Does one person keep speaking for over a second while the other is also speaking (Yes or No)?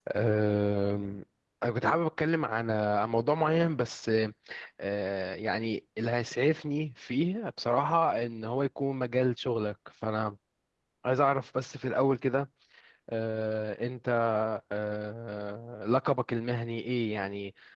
No